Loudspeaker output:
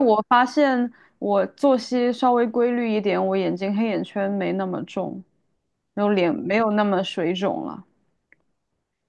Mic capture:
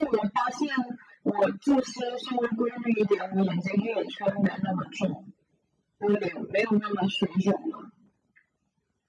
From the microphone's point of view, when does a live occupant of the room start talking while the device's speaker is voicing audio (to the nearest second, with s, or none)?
none